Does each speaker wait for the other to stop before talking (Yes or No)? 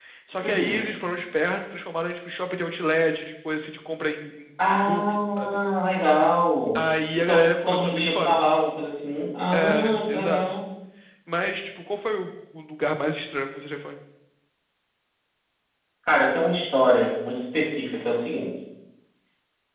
No